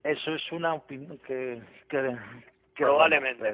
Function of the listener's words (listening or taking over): taking over